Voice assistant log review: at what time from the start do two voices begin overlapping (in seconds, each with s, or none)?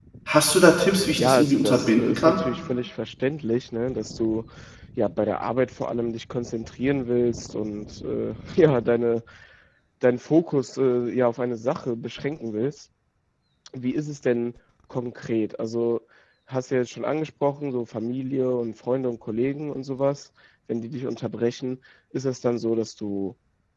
1.2 s